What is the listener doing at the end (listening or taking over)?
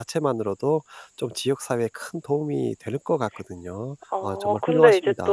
taking over